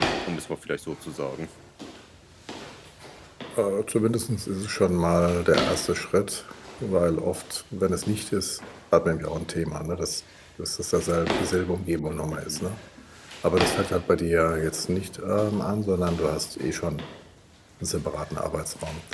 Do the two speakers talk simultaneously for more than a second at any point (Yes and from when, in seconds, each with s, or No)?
No